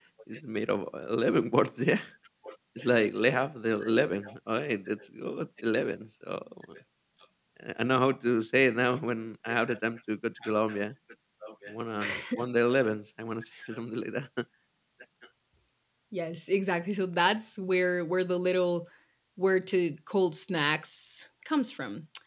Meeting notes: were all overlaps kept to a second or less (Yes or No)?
Yes